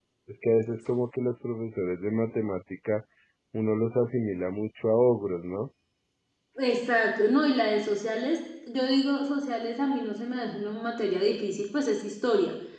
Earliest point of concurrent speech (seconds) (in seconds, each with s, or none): none